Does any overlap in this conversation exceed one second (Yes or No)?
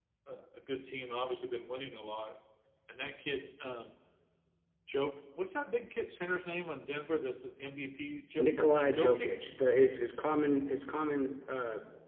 No